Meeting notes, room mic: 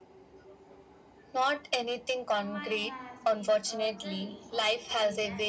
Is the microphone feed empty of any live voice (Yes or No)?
No